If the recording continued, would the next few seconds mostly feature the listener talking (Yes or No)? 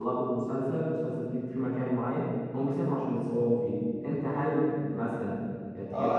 Yes